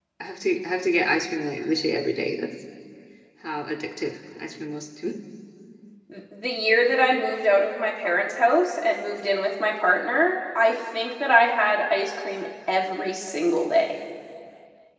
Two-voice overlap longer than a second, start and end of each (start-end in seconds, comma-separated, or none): none